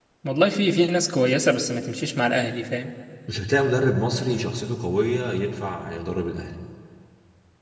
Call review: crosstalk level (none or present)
none